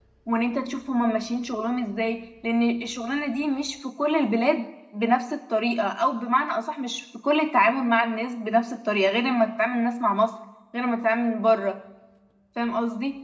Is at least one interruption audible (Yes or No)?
No